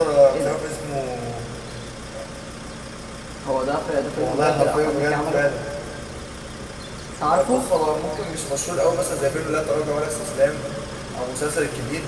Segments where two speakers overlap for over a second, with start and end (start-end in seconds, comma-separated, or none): 4.2-5.4